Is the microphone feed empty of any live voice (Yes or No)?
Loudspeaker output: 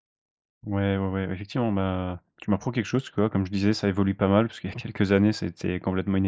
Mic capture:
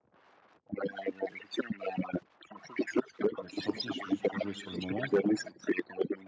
No